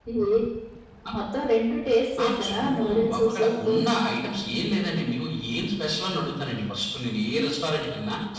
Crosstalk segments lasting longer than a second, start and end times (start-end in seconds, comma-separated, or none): 2.2-3.8